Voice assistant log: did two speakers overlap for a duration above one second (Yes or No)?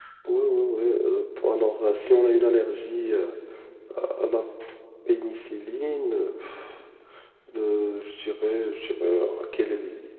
No